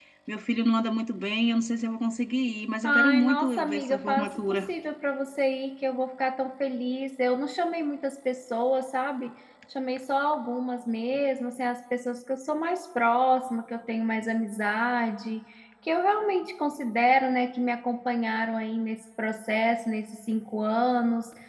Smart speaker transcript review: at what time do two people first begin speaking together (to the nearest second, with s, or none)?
3 s